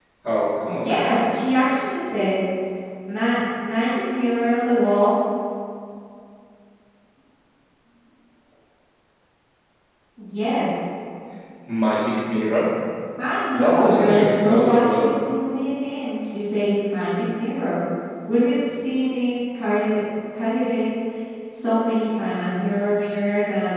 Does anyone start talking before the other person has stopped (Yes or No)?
Yes